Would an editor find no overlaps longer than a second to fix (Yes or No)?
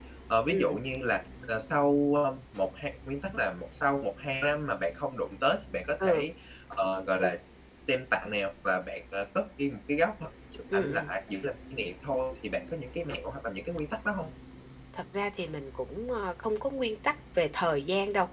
Yes